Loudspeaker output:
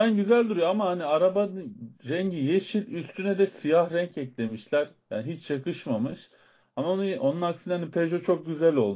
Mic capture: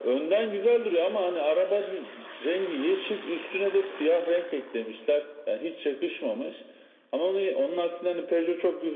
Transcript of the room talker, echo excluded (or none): none